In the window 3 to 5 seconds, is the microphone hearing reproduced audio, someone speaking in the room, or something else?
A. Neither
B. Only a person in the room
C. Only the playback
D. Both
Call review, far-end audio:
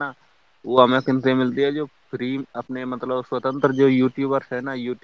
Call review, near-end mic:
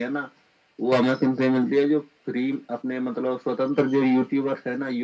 C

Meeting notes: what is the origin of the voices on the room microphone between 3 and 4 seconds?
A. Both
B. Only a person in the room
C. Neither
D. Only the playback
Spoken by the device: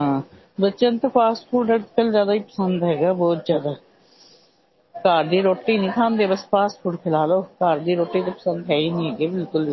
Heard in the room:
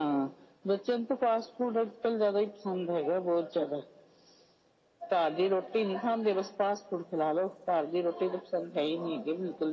D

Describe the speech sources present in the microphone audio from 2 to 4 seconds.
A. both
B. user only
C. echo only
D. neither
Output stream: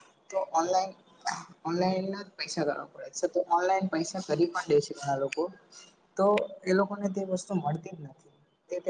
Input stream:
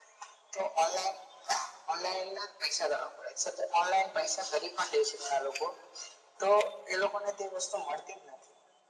C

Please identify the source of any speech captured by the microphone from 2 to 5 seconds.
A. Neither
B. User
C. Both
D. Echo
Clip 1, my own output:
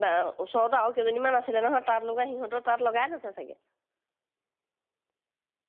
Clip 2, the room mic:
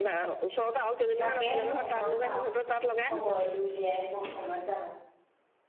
C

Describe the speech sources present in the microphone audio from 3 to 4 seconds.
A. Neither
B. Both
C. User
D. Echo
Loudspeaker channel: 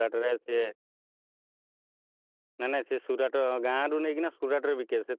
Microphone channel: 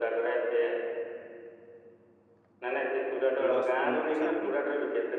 B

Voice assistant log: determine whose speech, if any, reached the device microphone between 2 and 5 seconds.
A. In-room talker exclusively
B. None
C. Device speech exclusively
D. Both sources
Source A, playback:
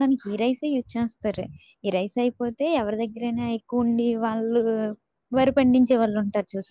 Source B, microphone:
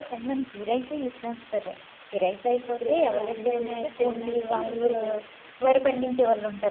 D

